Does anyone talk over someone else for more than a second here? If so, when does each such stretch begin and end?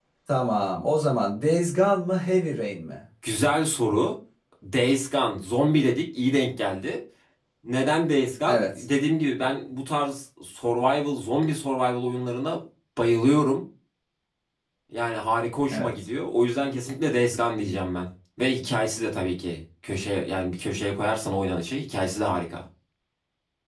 none

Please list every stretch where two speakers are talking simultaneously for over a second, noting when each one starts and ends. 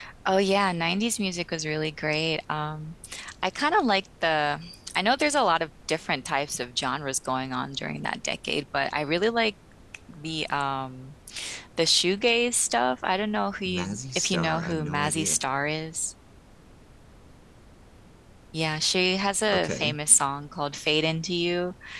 13.7-15.4

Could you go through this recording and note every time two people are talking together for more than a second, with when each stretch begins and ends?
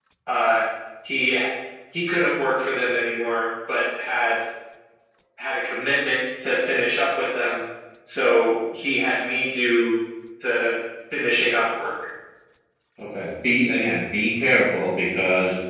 none

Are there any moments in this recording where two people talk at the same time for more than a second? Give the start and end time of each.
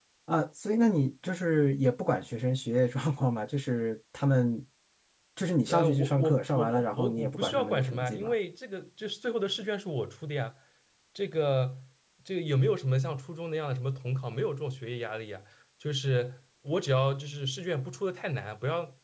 5.7-8.3

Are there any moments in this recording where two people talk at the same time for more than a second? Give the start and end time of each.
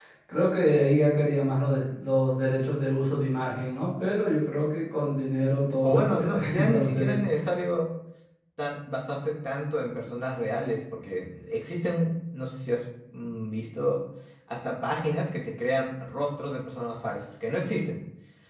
5.8-7.2

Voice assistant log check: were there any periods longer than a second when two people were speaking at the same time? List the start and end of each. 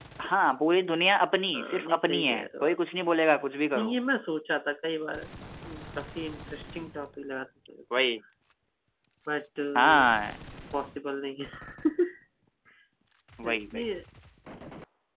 1.5-2.8

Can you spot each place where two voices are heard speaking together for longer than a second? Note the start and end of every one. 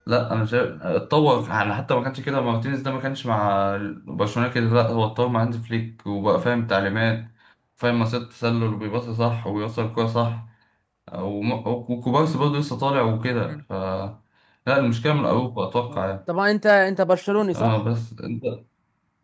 none

